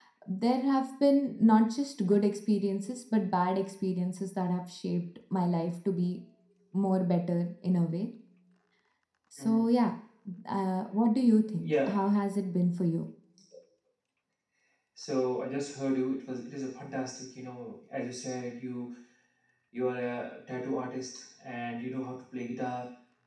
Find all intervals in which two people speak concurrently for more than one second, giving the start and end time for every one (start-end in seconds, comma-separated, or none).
none